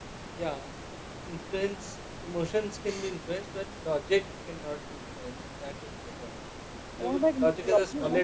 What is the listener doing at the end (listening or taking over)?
taking over